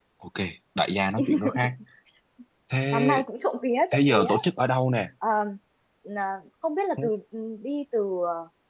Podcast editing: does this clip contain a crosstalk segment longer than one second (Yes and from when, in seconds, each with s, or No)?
No